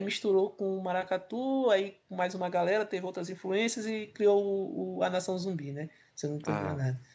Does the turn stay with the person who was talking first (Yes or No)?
Yes